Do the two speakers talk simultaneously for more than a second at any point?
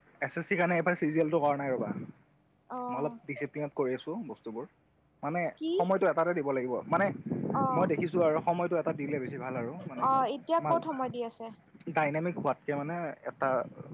No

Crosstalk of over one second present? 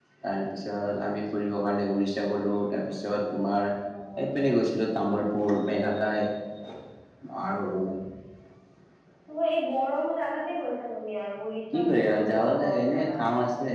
Yes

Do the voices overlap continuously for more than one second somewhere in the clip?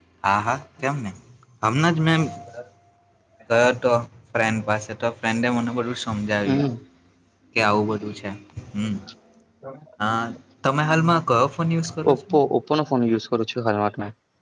No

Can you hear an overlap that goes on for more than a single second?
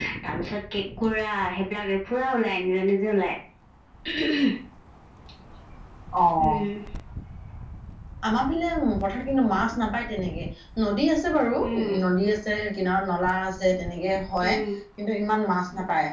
No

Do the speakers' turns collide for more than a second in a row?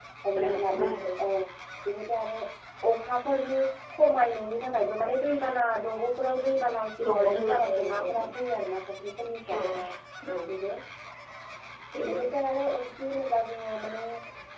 Yes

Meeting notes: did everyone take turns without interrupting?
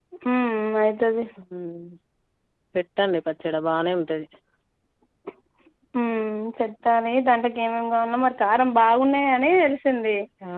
Yes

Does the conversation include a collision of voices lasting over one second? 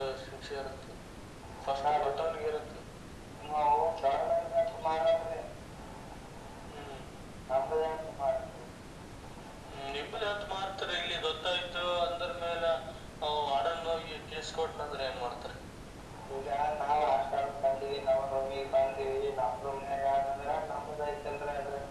No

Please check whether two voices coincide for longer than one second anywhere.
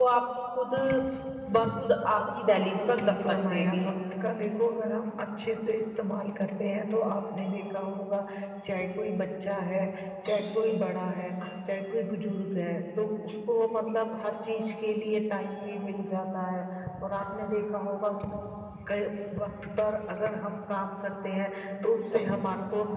Yes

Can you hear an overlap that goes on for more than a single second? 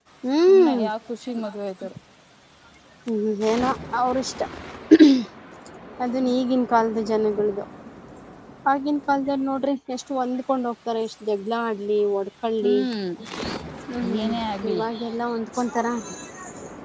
No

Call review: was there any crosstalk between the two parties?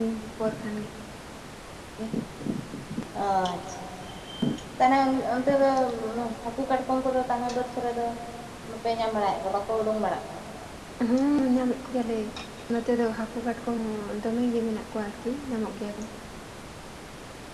No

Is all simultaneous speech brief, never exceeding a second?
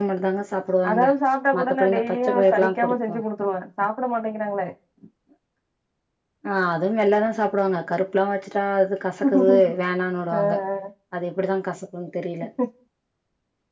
No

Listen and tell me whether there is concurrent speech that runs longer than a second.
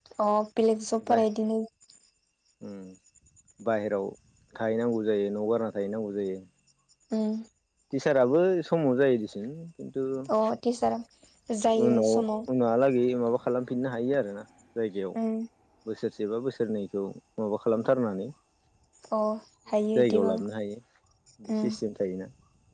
No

